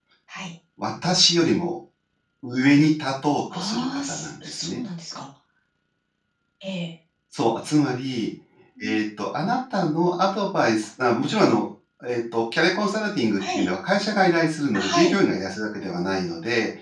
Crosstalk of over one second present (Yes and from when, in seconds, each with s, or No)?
Yes, from 3.5 s